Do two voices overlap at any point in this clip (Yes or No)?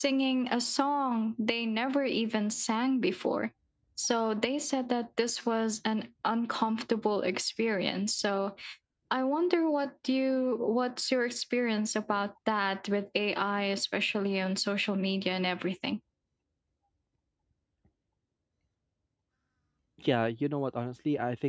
No